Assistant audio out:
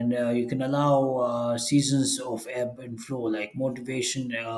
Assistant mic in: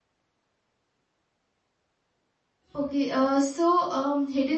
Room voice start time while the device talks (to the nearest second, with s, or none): 3 s